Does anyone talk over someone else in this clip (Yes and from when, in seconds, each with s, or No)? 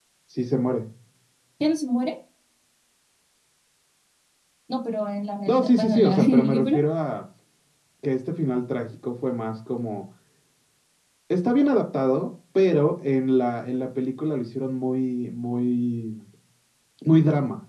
Yes, from 5.5 s